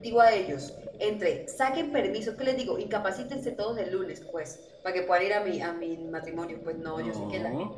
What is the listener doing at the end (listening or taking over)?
listening